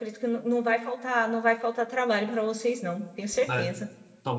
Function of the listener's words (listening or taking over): taking over